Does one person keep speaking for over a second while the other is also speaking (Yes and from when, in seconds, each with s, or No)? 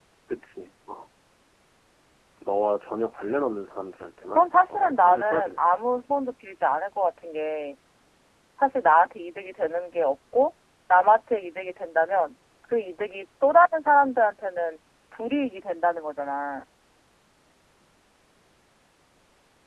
Yes, from 4.4 s